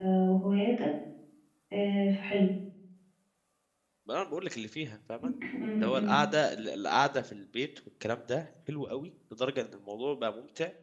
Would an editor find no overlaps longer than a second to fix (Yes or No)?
Yes